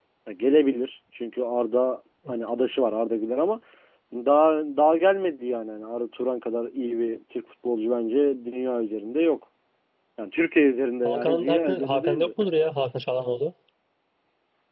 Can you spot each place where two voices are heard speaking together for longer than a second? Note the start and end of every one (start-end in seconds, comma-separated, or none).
11.0-12.3